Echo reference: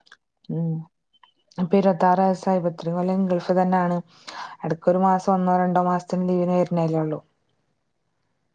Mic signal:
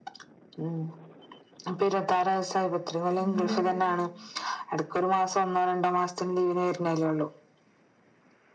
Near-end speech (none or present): present